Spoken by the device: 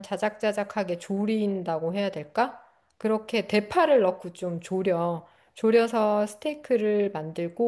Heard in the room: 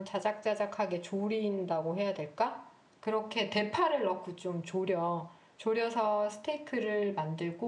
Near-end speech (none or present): none